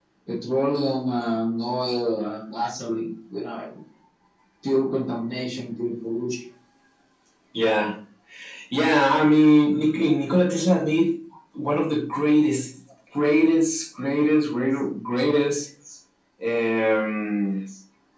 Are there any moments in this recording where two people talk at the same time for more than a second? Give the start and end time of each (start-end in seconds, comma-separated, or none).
none